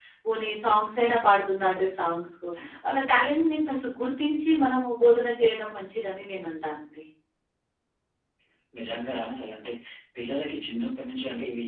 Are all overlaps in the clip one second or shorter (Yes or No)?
Yes